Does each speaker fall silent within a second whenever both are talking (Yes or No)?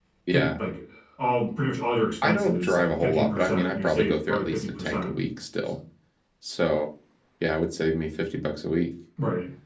No